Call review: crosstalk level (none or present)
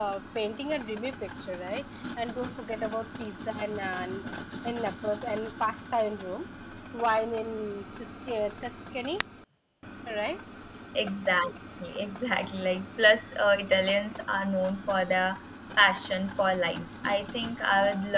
none